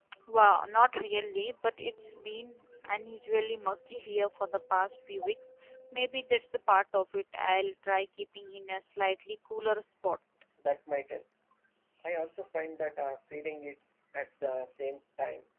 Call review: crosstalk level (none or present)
none